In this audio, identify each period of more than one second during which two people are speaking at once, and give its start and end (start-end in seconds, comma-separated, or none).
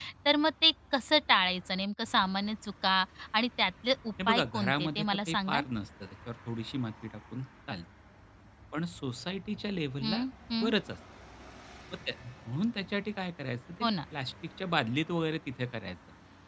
4.3-5.6